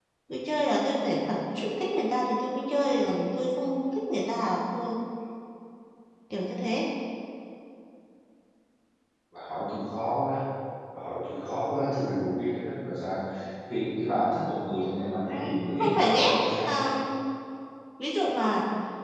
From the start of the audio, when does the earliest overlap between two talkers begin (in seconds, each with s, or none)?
15.1 s